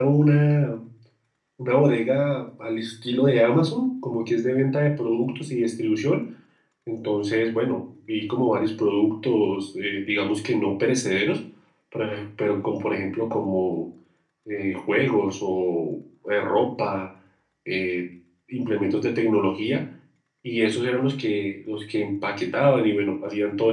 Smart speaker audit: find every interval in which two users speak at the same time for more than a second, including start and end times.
none

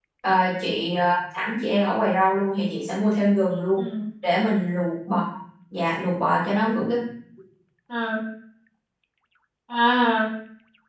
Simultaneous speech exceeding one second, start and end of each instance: none

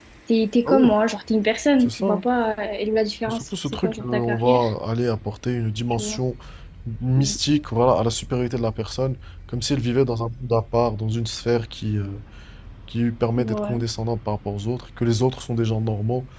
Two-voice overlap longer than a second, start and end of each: 3.3-4.6

